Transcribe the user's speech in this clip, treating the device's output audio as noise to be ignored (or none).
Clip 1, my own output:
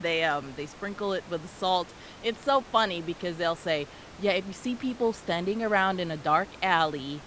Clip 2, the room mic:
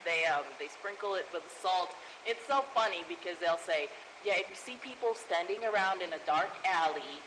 none